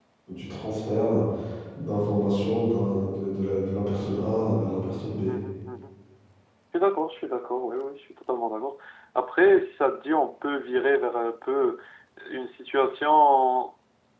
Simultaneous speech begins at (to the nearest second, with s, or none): none